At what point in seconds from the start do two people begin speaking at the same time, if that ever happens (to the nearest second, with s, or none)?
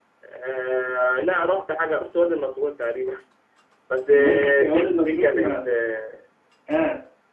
4 s